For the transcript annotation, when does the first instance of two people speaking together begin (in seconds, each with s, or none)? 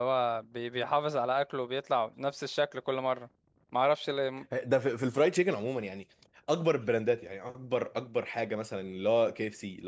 none